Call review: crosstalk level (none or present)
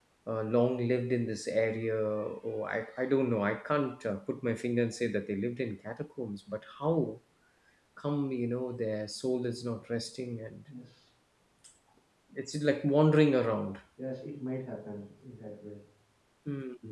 none